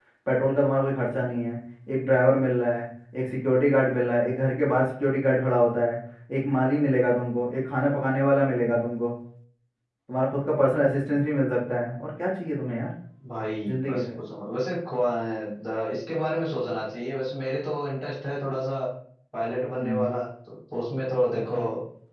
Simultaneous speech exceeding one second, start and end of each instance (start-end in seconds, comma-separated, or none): none